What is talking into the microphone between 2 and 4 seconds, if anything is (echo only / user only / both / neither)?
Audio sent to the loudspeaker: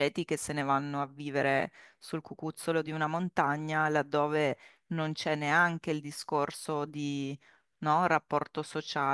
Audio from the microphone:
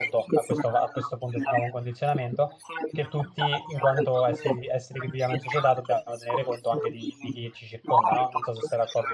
both